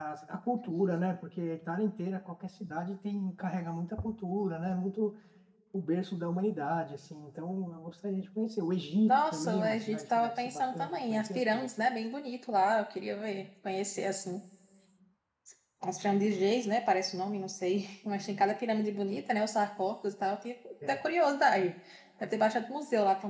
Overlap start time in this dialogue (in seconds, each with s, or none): 9.1 s